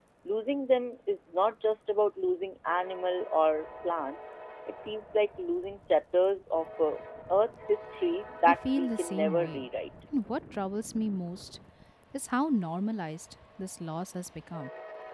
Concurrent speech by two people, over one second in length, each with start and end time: 8.5-9.7

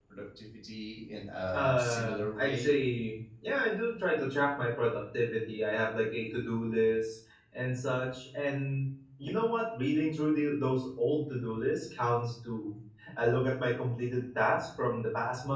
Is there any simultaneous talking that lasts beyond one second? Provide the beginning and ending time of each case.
1.5-2.7

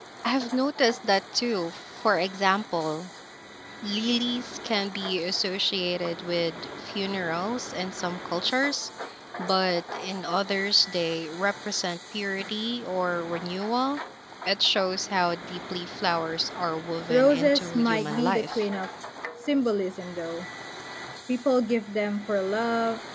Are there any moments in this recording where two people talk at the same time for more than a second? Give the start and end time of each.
17.1-18.7

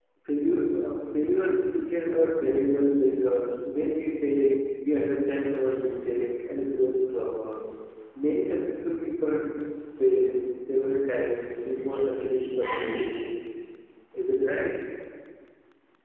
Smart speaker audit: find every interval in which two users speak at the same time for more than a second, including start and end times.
11.8-13.1

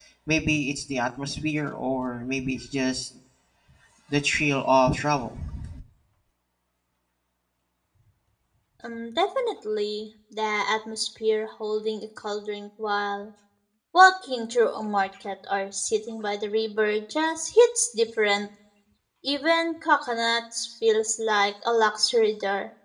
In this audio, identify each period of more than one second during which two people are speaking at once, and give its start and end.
none

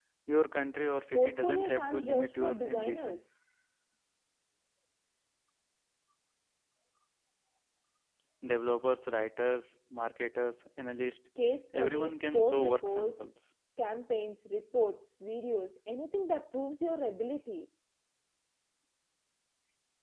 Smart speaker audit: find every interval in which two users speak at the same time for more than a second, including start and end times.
1.1-3.2, 11.8-13.3

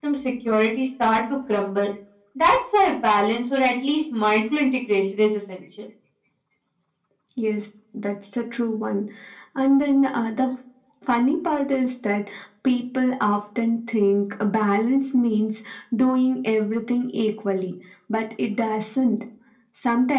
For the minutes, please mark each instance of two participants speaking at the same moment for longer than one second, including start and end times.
none

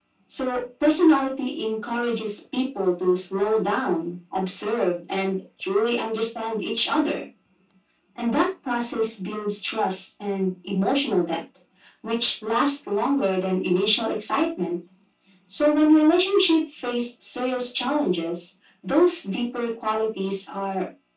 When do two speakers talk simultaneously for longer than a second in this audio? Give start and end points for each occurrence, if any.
none

